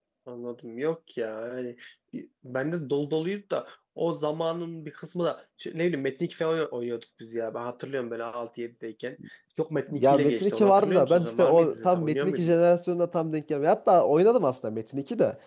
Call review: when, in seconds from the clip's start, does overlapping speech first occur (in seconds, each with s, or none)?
10.0 s